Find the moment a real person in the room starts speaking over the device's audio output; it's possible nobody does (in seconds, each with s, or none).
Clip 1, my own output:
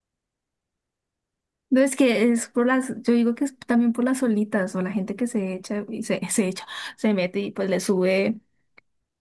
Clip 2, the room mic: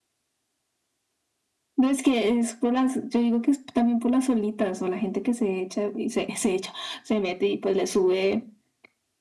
none